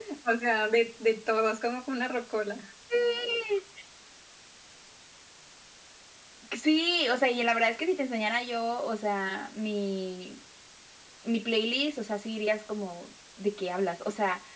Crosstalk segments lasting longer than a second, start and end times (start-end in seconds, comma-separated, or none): none